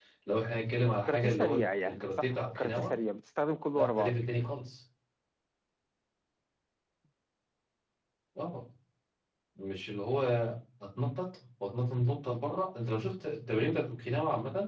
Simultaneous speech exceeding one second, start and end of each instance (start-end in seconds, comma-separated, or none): 1.1-2.9